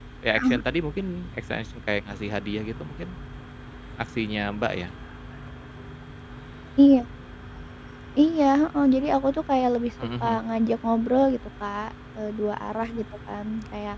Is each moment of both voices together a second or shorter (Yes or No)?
Yes